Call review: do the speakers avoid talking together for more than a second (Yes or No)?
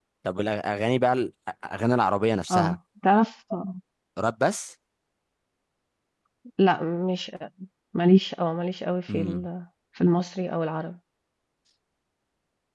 Yes